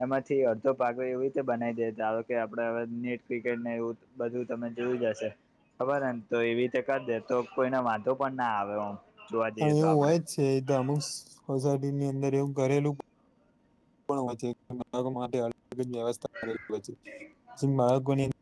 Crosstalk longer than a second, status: none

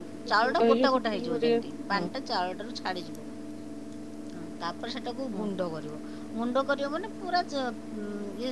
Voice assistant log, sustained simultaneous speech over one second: present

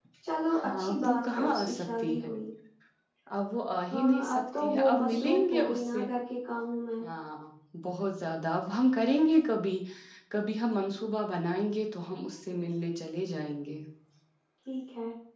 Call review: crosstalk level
present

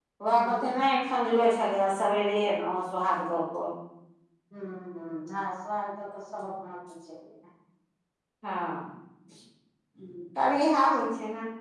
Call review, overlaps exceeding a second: none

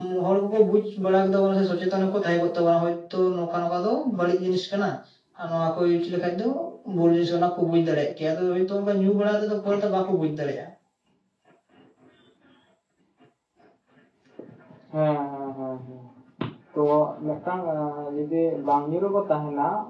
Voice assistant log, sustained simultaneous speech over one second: none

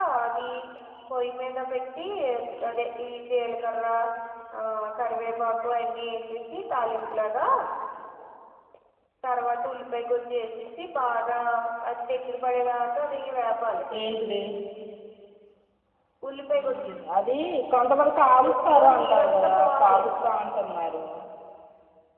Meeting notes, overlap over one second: present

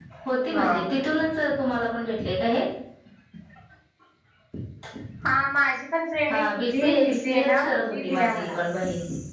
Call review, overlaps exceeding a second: present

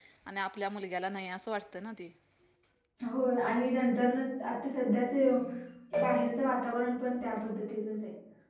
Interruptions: none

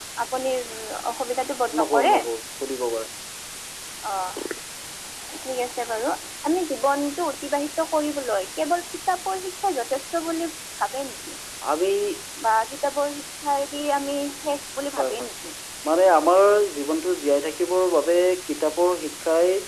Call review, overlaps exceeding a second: none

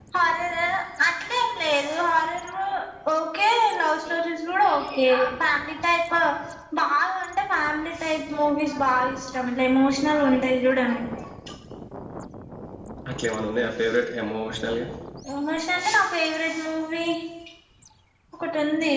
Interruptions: none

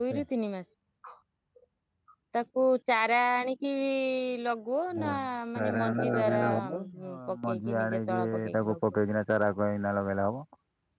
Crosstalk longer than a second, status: present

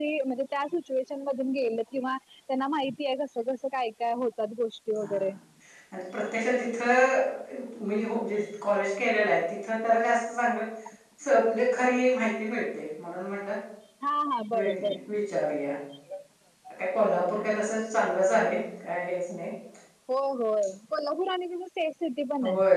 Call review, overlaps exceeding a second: none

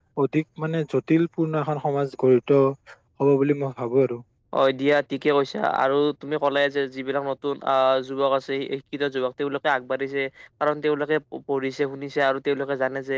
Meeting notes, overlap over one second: none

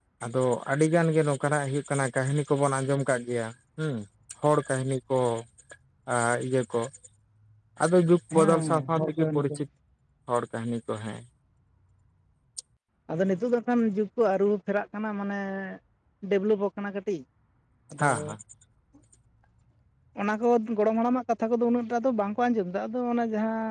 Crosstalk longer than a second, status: present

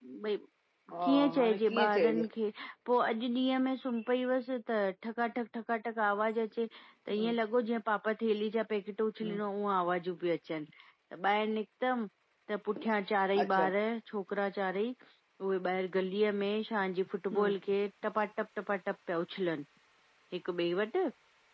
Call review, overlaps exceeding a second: present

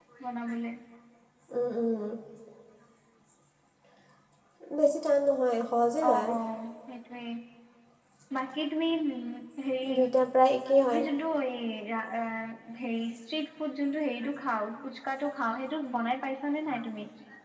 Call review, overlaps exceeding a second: none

